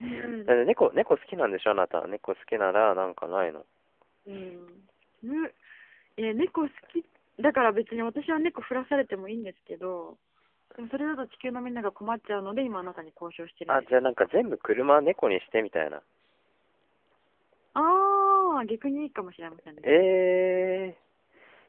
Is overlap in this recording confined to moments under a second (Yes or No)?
Yes